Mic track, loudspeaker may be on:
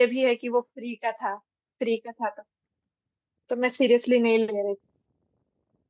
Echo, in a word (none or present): none